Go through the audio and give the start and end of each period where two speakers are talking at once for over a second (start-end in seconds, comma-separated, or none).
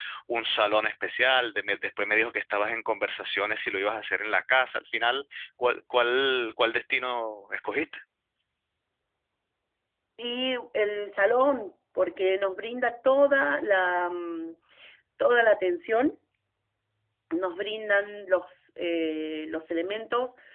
none